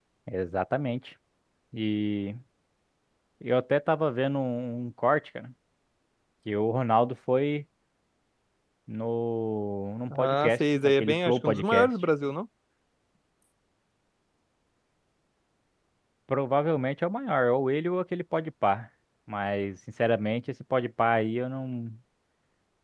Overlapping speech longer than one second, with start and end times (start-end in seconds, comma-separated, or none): 10.1-11.9